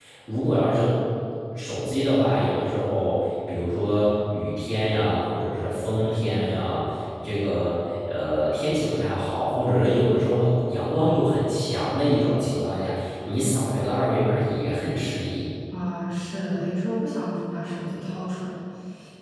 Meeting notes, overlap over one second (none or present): none